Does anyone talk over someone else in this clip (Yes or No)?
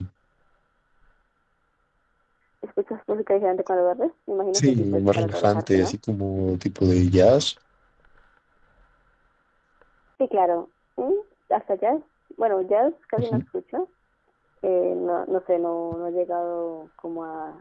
Yes